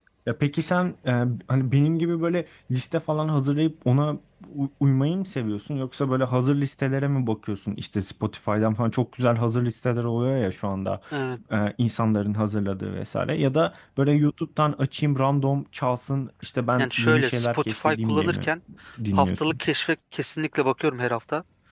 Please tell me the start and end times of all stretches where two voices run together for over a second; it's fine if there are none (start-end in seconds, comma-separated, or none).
16.8-18.5